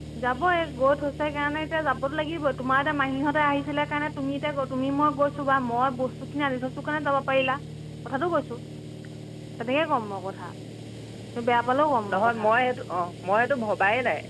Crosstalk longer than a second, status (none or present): none